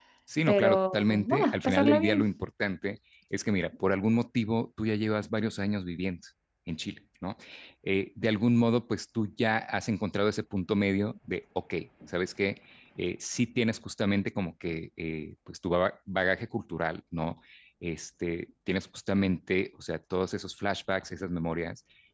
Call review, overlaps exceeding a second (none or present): present